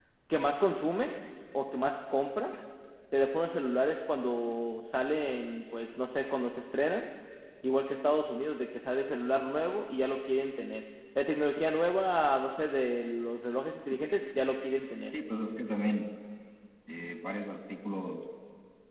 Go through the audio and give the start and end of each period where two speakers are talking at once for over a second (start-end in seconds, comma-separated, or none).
none